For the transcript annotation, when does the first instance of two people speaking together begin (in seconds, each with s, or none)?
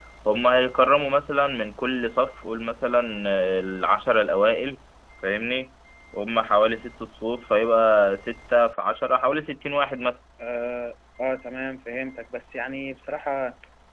none